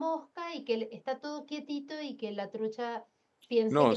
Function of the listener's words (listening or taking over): taking over